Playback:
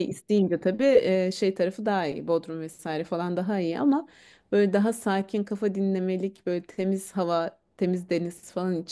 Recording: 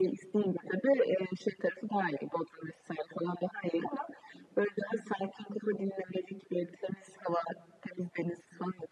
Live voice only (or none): none